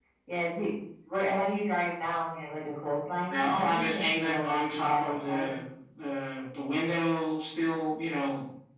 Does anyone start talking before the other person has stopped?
Yes, from 3.3 s

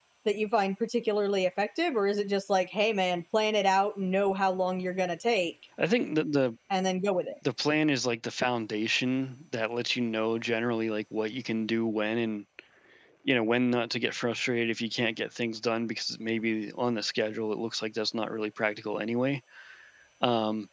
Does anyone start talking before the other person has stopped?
No

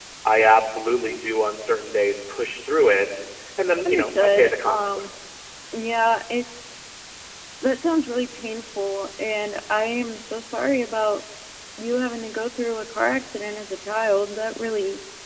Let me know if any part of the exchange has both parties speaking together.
Yes, from 3.9 s

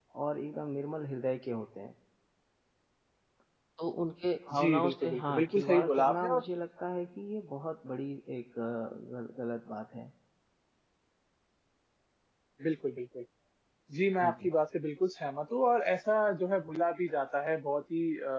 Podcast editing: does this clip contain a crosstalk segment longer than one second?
Yes, from 4.6 s

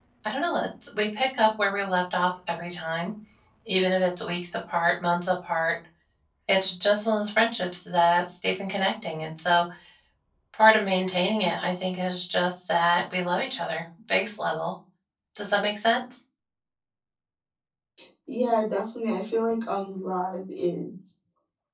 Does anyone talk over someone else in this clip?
No

